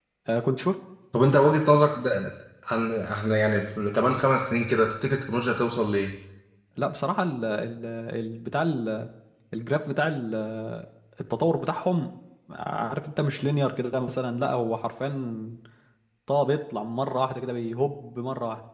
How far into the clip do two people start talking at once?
none

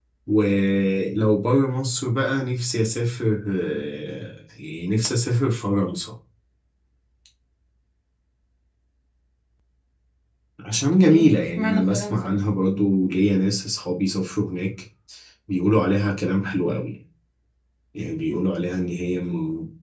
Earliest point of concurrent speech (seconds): 11 s

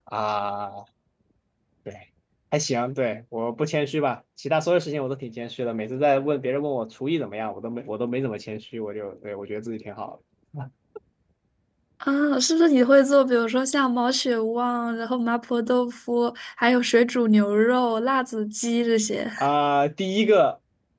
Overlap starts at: none

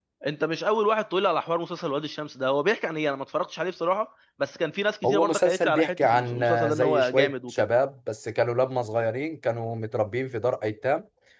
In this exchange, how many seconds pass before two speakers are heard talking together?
5 s

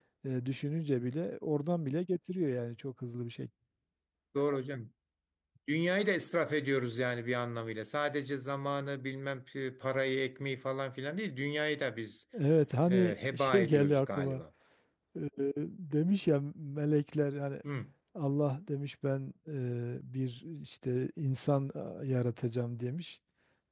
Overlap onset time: 13 s

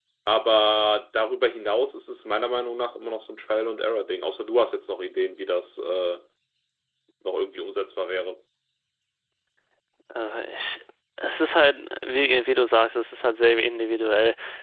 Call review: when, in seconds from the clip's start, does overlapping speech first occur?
none

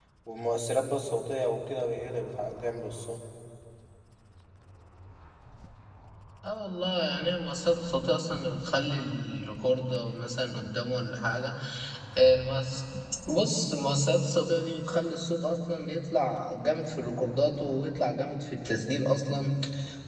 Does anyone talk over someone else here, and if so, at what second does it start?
none

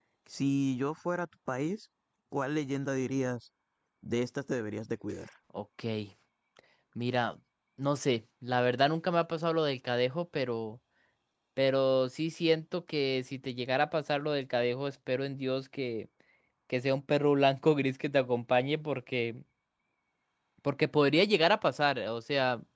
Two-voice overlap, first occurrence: none

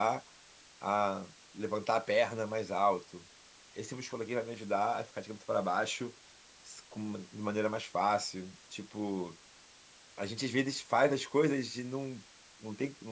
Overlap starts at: none

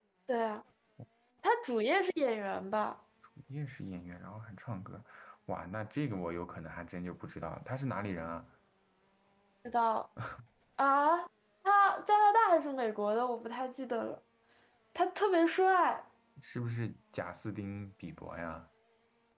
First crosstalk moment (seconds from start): none

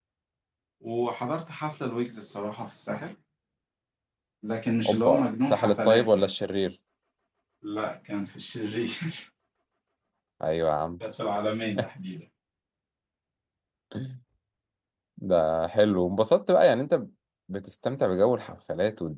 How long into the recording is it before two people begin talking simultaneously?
5 s

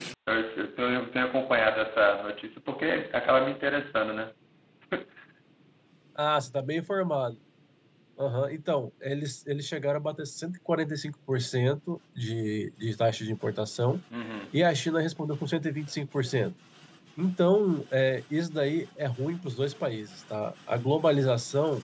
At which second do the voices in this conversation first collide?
none

